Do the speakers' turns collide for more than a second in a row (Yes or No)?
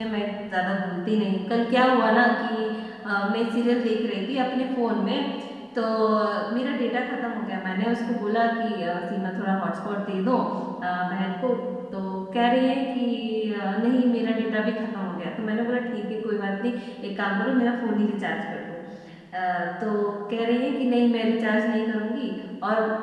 No